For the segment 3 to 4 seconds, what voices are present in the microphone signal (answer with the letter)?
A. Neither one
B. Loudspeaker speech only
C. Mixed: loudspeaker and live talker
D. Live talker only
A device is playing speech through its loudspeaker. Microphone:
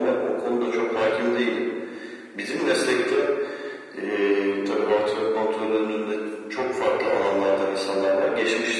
B